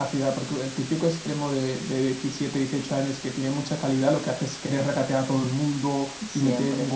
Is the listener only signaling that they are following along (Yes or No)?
Yes